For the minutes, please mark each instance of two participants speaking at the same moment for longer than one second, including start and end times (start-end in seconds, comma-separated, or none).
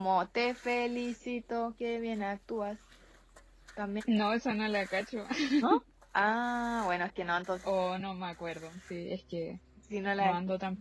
none